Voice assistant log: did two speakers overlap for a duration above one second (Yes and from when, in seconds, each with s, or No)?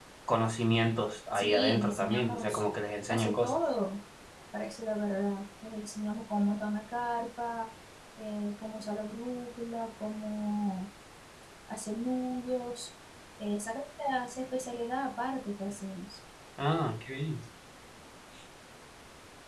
Yes, from 1.3 s